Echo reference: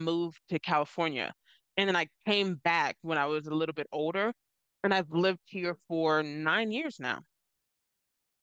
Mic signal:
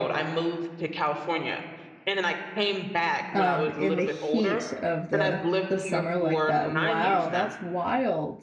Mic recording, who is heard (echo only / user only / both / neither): both